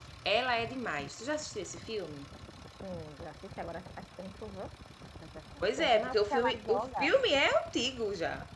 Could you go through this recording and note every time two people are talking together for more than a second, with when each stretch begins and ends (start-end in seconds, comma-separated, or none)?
5.8-7.1